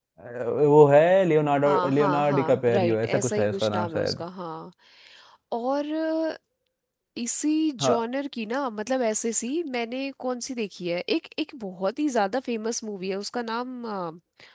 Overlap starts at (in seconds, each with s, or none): 1.6 s